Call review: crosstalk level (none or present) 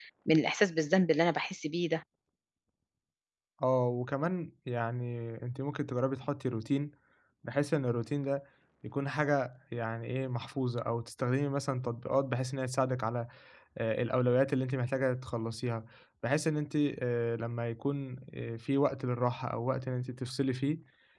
none